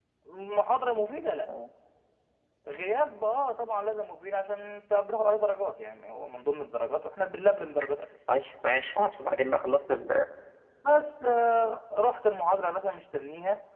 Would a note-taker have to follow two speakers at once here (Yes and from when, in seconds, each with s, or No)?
No